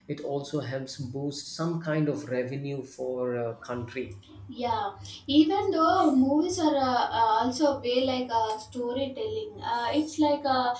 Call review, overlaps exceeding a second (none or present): none